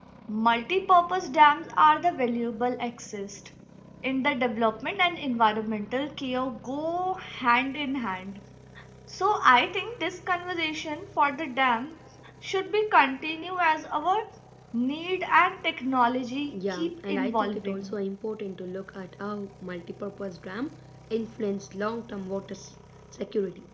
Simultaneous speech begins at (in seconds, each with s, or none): 16.4 s